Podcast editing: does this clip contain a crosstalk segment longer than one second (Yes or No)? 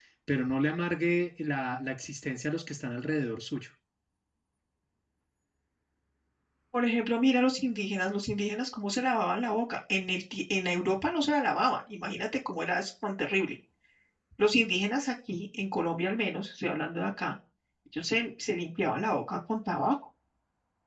No